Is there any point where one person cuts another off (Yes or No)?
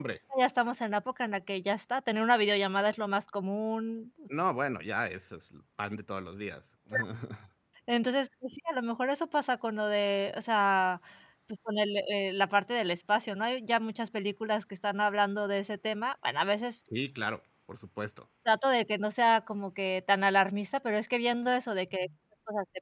No